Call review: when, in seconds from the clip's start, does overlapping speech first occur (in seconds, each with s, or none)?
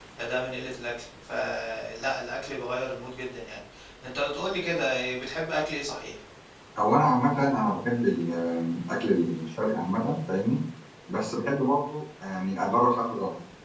none